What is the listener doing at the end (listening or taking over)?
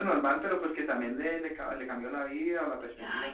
taking over